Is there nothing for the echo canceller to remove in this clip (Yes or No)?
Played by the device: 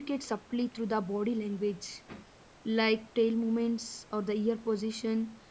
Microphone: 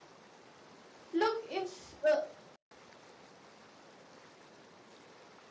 Yes